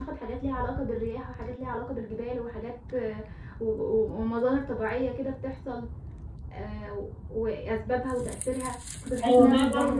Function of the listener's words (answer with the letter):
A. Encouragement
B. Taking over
B